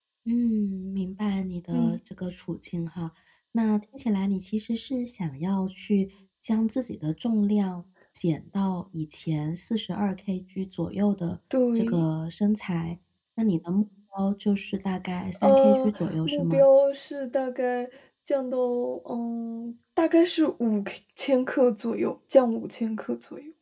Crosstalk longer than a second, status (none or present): present